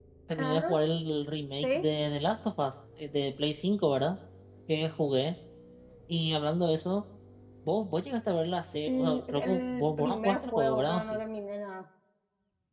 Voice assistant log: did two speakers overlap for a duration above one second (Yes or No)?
Yes